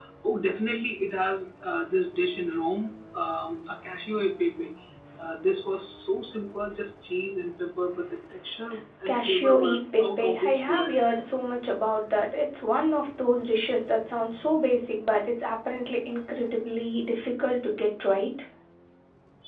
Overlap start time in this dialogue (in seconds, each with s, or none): 9.1 s